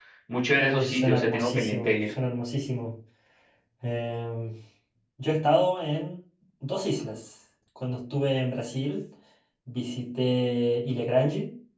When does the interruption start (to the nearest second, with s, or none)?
1 s